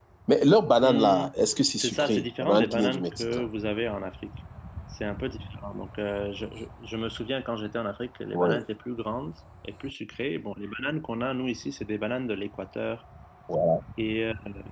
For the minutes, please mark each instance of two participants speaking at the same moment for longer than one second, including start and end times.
1.8-3.5

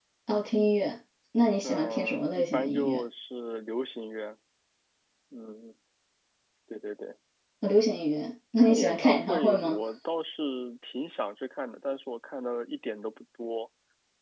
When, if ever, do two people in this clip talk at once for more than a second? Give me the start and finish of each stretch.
1.6-3.0, 8.6-9.8

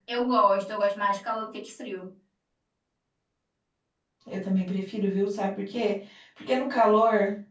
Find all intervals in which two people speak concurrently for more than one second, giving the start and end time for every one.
none

